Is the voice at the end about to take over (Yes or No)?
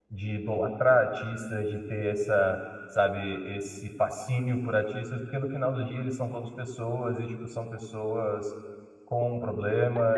Yes